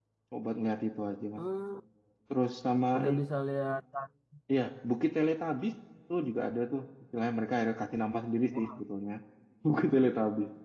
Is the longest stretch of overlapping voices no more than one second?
Yes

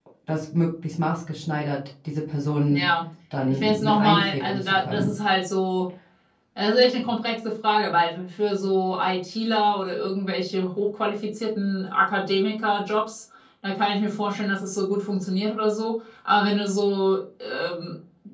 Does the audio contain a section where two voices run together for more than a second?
Yes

